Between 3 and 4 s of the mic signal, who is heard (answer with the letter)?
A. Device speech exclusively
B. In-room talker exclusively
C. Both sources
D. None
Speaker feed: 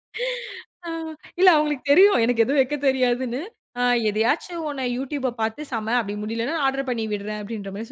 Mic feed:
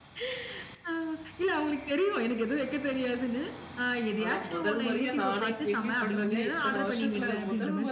A